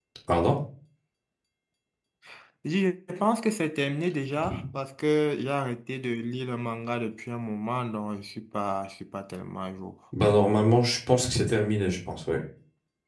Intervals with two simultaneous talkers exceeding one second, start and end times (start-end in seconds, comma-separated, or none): none